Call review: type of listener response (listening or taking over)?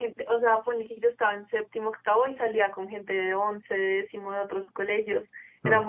listening